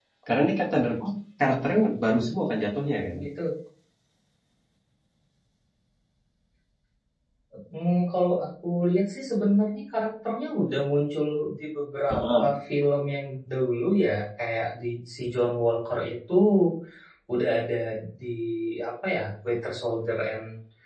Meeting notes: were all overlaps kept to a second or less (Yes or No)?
Yes